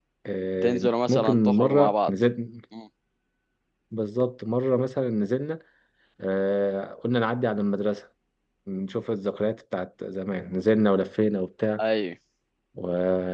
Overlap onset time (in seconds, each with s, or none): 0.6 s